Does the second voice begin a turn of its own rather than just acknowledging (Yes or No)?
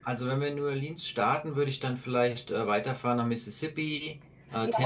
Yes